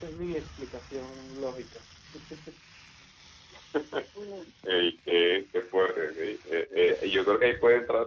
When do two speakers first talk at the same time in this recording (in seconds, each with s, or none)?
none